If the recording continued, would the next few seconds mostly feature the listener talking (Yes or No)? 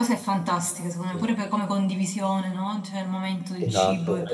Yes